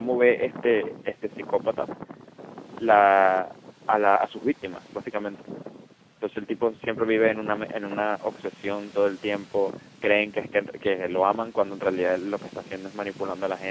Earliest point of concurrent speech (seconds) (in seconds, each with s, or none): none